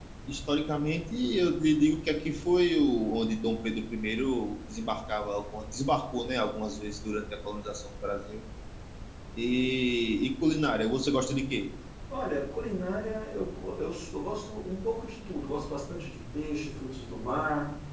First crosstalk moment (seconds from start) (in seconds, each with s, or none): none